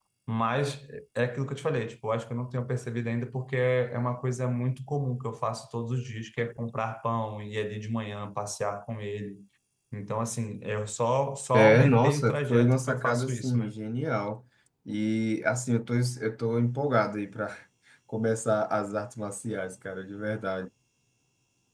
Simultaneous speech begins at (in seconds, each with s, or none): 11.5 s